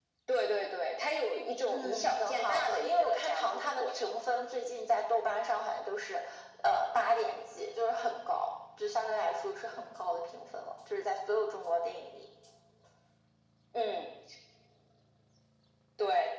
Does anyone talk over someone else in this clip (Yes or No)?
Yes